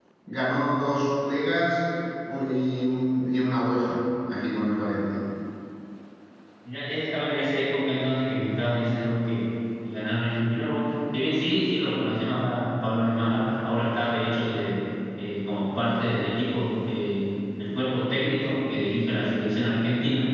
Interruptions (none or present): none